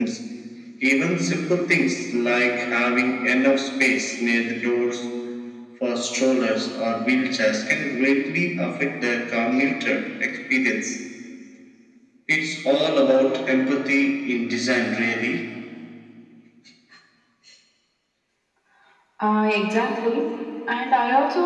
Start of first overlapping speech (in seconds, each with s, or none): none